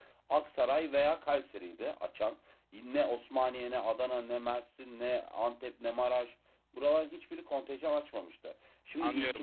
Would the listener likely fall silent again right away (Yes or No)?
No